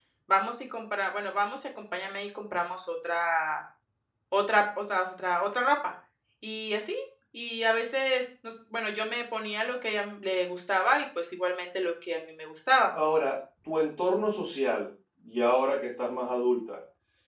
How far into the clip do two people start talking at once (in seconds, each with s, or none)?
none